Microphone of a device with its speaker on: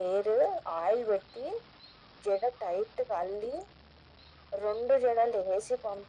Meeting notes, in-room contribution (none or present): none